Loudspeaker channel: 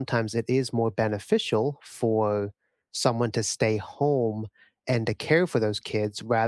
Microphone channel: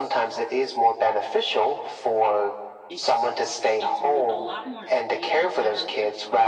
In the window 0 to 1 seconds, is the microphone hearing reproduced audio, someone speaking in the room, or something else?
echo only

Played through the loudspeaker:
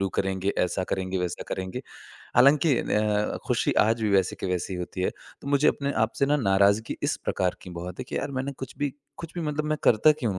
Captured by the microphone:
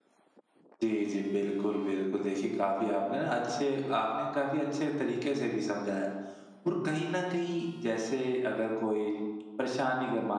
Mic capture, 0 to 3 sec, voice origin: user only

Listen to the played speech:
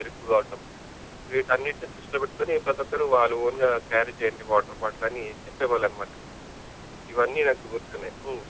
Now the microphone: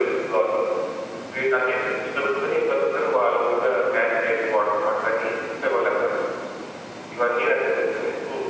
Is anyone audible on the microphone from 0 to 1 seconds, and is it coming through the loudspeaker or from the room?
echo only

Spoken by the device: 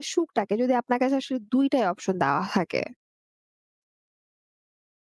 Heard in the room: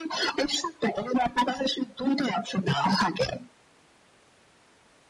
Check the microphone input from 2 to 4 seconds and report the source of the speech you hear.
echo only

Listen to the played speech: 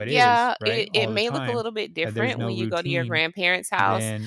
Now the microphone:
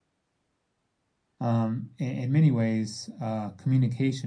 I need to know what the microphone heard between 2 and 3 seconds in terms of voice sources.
user only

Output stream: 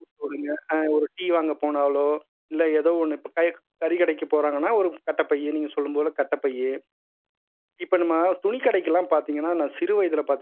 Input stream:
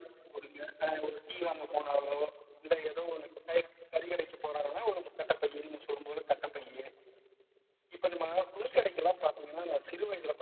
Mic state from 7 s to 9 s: echo only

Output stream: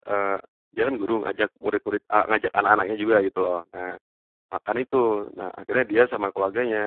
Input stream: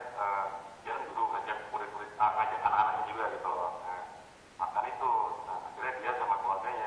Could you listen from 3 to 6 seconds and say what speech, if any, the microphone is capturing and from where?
echo only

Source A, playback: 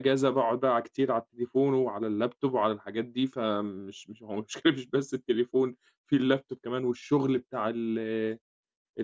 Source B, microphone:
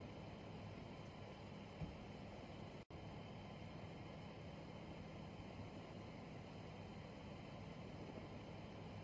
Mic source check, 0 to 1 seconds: neither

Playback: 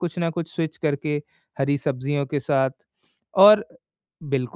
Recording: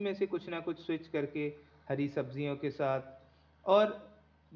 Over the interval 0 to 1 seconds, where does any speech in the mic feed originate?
echo only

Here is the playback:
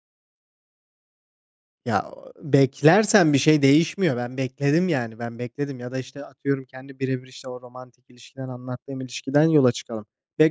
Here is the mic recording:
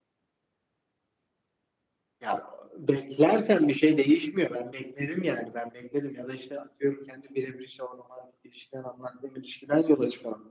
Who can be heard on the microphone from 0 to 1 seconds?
neither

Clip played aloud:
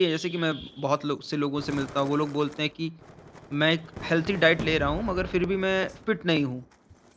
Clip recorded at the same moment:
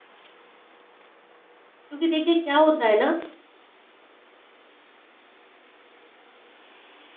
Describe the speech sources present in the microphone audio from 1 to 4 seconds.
user only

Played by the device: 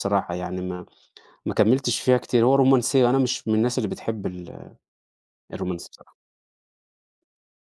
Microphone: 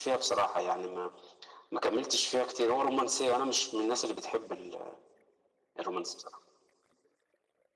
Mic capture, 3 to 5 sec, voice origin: echo only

